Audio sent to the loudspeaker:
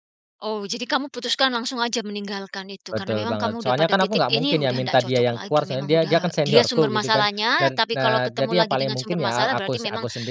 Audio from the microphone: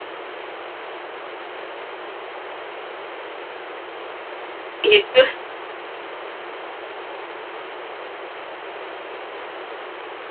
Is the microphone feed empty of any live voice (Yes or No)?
No